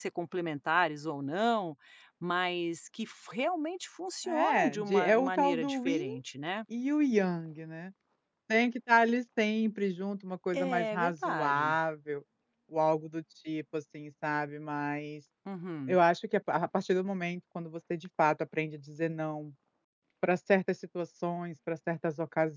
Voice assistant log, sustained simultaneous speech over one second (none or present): present